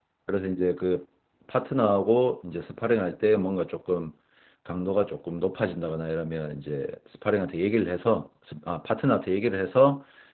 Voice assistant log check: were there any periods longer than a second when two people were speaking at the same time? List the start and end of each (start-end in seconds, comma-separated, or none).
none